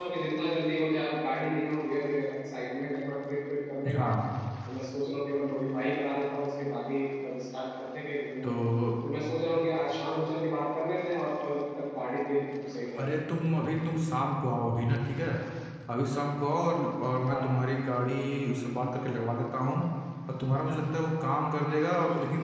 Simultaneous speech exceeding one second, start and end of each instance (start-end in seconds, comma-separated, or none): none